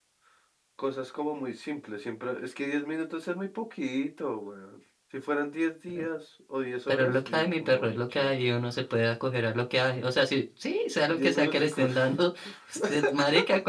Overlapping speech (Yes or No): Yes